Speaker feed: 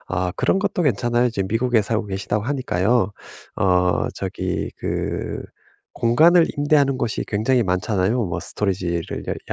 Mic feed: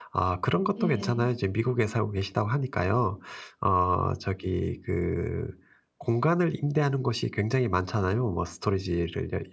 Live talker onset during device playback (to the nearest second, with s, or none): 1 s